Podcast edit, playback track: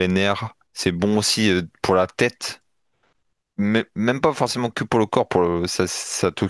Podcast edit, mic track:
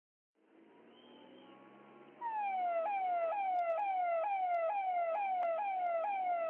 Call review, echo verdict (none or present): none